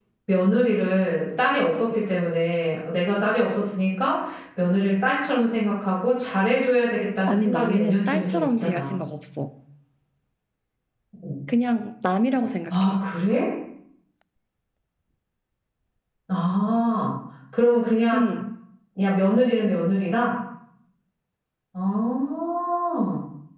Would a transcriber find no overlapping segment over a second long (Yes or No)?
No